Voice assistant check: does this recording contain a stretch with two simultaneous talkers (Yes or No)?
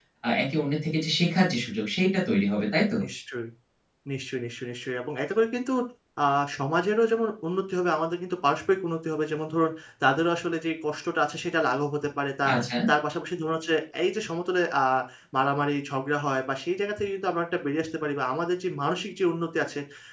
No